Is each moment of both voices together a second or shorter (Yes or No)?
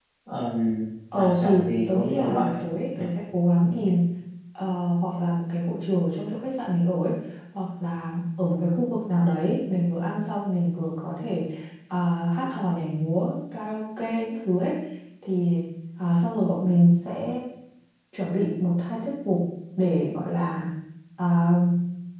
No